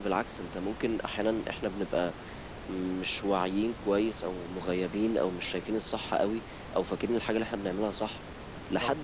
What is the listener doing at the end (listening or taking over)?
listening